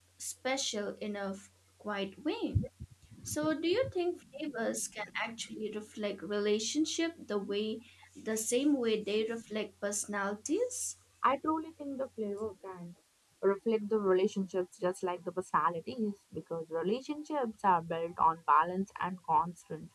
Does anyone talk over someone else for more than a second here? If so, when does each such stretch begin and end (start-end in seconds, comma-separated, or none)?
none